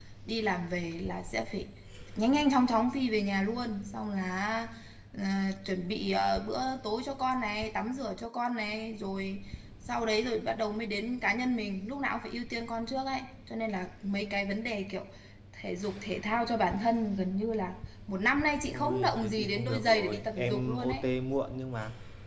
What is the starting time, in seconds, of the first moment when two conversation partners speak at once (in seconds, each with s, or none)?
18.6 s